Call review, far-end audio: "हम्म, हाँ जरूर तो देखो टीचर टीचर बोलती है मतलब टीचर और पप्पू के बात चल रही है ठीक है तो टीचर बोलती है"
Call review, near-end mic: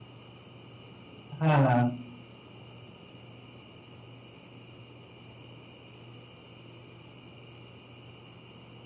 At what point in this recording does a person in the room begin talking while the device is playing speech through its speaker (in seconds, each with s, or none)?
1.4 s